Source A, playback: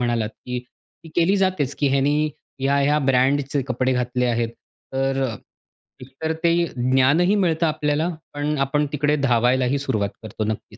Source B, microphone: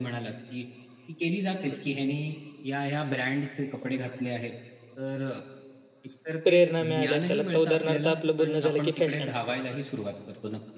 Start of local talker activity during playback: 6.4 s

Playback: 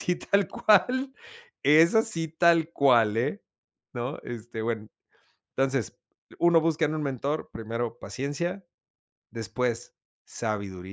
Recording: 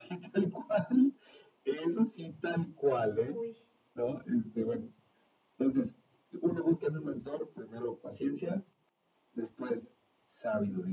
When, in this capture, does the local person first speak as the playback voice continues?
3.2 s

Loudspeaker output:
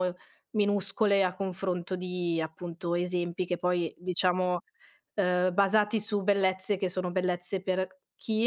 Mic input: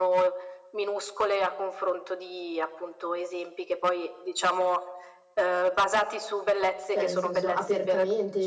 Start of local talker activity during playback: 6.8 s

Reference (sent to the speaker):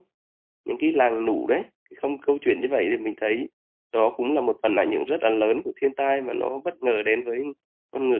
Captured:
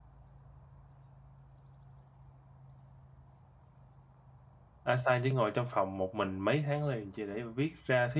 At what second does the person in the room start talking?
4.8 s

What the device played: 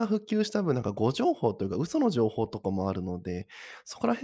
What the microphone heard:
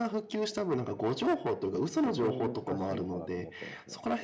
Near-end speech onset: 2.0 s

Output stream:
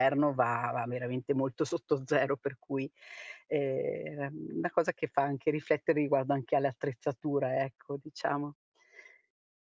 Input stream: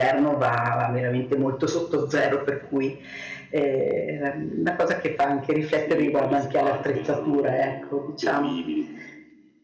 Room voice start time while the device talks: 5.7 s

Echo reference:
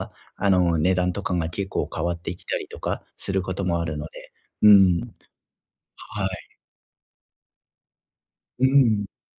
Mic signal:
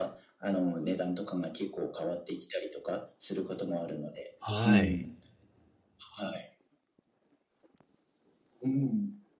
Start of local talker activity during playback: 4.4 s

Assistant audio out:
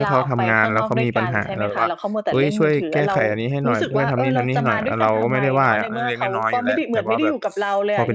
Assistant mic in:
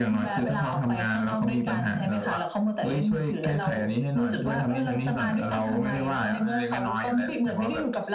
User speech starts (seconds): none

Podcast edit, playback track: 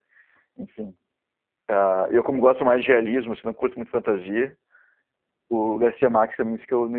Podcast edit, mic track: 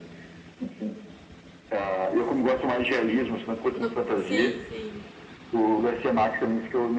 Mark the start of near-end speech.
3.7 s

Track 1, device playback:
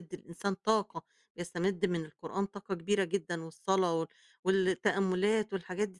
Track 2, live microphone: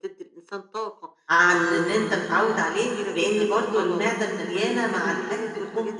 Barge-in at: 1.3 s

